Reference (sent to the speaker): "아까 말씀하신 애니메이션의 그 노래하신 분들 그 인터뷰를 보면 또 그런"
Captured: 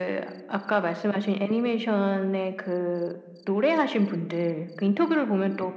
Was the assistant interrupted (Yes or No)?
No